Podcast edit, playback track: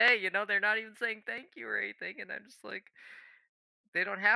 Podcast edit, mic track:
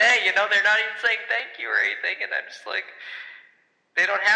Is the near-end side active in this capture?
No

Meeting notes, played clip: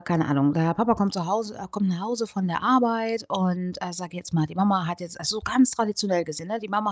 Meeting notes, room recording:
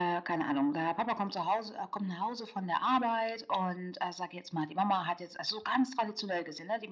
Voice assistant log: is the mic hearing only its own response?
Yes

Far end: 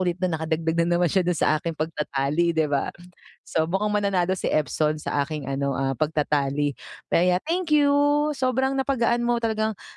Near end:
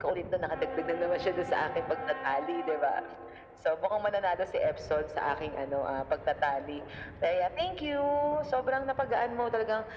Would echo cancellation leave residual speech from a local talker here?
No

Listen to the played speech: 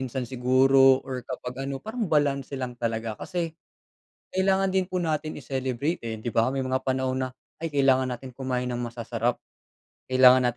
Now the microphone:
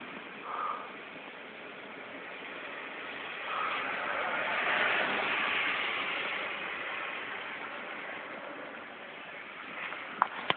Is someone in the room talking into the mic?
No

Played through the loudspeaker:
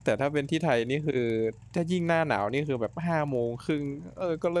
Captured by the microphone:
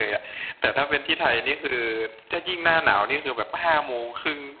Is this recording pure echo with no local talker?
Yes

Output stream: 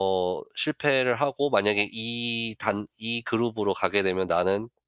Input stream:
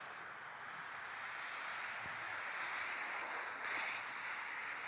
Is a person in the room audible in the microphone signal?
No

